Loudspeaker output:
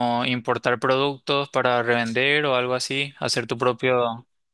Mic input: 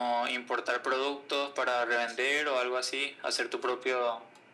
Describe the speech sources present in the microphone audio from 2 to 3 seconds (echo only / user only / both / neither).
echo only